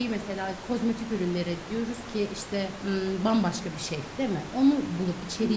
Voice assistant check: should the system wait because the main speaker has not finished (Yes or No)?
Yes